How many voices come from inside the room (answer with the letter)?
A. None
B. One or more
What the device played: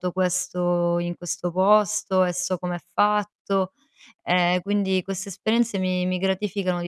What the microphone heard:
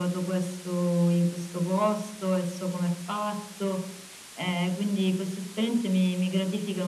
A